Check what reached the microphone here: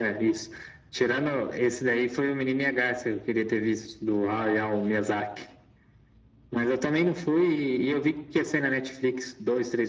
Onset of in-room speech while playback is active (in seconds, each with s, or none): none